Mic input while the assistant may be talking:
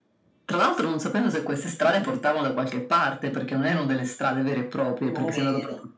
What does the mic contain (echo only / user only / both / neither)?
both